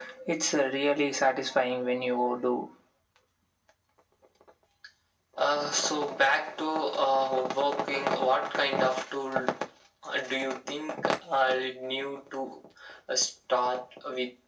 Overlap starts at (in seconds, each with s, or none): none